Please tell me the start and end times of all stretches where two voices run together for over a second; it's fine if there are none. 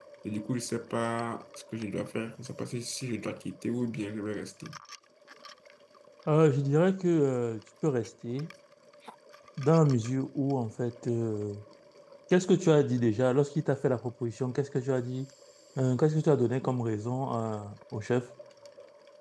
none

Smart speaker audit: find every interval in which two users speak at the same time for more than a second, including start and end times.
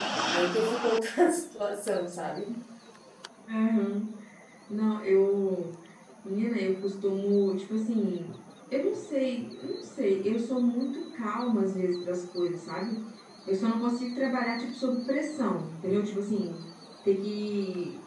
none

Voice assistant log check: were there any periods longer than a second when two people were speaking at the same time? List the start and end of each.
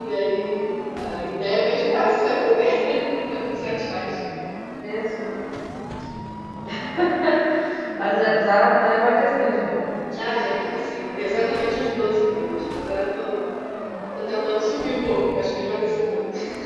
none

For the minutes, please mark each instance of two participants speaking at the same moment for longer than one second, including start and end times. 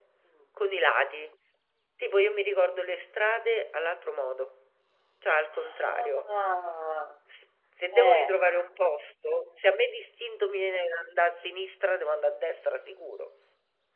none

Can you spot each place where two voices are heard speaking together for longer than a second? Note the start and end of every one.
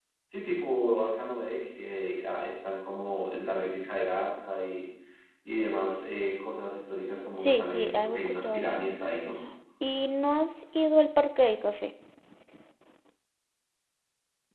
7.4-8.8

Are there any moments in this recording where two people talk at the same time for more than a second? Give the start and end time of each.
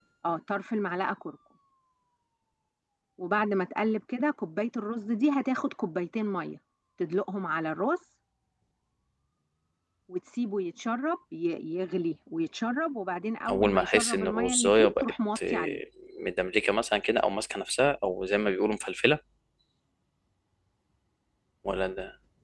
13.5-15.8

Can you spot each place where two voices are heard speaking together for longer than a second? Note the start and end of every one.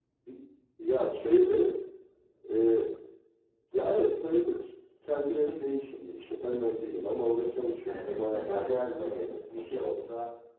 7.8-10.0

